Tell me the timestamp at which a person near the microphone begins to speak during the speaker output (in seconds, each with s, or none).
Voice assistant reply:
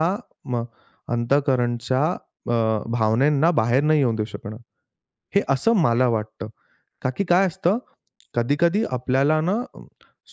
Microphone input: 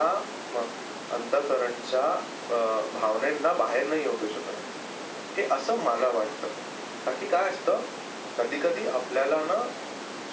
none